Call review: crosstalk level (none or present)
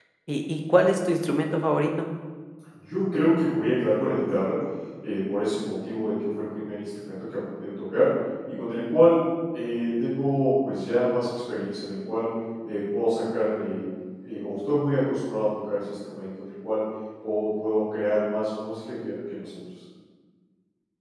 none